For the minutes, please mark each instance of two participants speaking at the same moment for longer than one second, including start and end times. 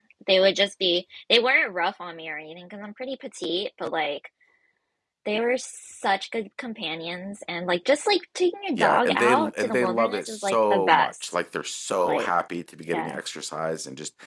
8.8-11.3

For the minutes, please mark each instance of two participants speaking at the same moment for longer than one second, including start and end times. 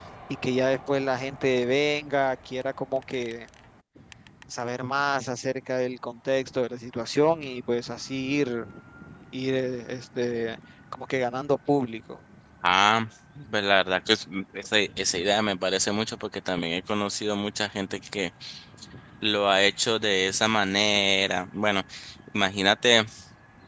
none

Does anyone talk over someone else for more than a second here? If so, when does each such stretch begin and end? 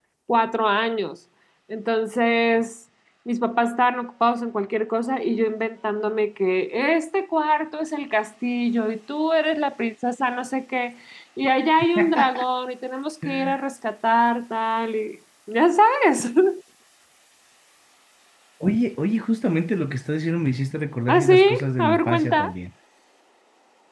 21.1-22.5

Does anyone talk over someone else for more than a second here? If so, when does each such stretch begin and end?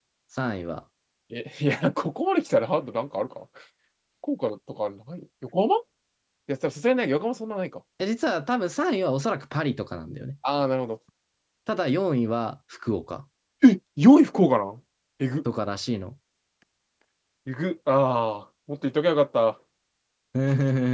none

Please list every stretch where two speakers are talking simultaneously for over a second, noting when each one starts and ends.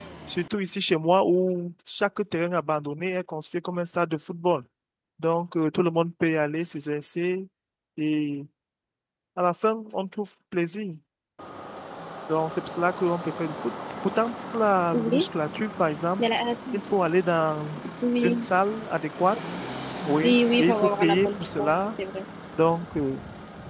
20.2-21.7

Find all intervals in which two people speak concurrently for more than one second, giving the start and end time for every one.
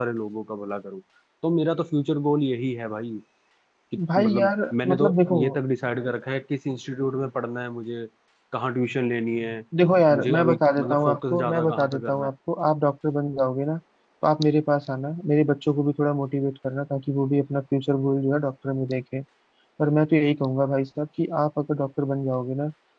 4.2-5.4, 10.1-12.3

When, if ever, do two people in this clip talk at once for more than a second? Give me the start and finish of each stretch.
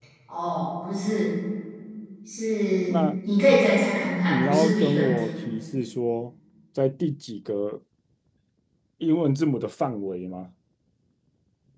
4.0-5.2

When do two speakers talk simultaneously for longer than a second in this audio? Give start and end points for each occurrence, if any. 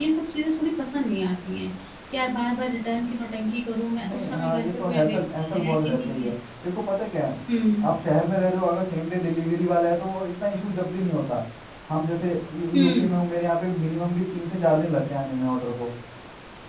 4.0-6.3

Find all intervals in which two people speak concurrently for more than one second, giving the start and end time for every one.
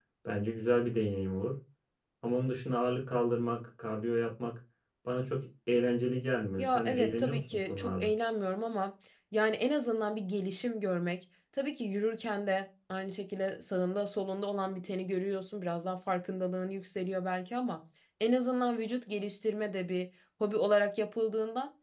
6.6-8.1

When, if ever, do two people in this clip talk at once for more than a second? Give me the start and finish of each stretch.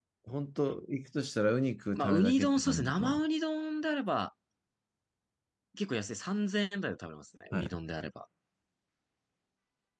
2.0-3.2

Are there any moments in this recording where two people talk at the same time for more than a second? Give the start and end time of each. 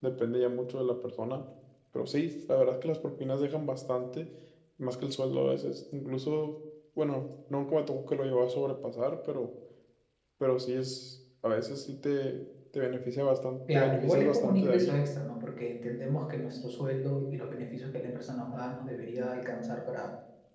13.7-15.0

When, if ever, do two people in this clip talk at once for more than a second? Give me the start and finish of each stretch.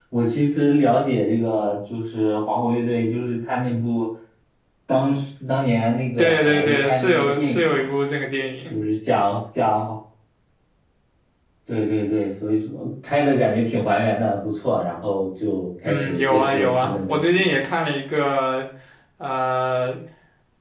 6.2-7.8, 15.8-17.5

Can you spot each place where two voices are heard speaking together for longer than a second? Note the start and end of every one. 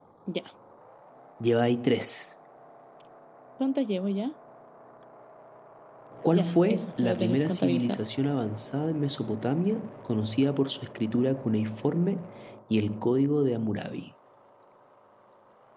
6.3-8.0

